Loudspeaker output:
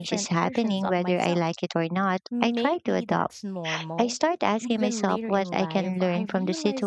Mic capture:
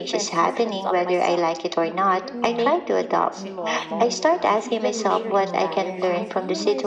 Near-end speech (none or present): present